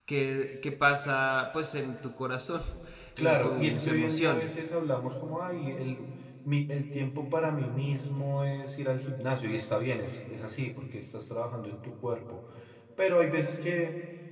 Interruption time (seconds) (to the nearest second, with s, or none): 3 s